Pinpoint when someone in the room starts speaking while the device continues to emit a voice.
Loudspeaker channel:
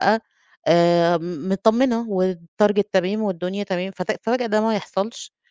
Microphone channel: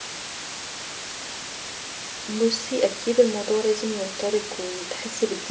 2.3 s

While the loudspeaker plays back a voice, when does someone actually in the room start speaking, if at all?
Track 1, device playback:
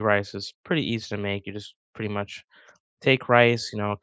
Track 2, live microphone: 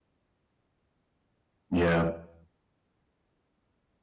1.7 s

